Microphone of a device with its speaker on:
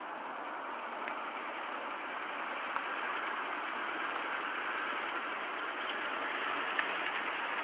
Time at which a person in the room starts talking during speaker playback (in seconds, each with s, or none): none